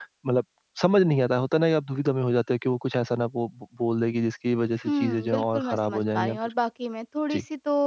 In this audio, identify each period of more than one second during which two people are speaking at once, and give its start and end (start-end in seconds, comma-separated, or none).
4.8-6.4